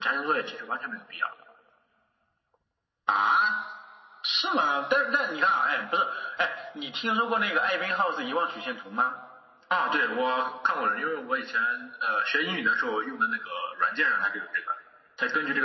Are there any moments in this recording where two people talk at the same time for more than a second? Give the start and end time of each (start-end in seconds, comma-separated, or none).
none